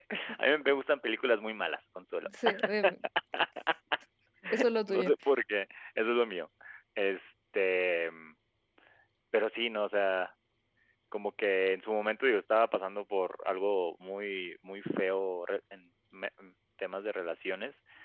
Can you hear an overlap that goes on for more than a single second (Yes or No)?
No